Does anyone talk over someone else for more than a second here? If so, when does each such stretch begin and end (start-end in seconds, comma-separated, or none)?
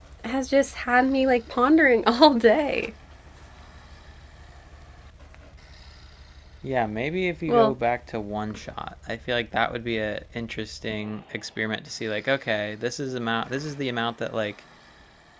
none